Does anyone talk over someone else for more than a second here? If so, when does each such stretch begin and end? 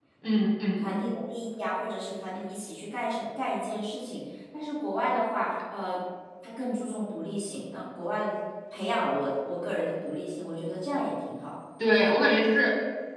none

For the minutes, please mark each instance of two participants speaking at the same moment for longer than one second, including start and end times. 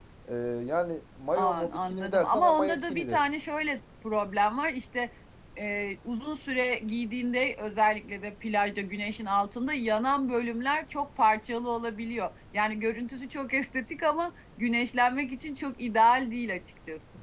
1.4-3.2

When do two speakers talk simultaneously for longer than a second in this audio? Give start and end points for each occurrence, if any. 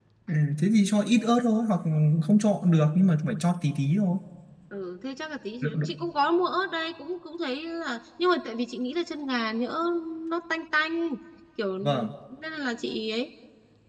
none

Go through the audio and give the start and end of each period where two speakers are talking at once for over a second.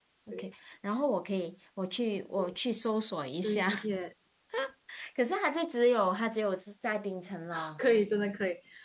none

